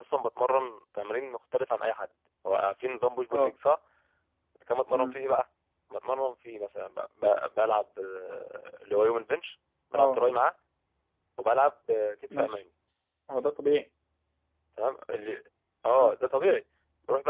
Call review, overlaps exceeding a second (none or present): none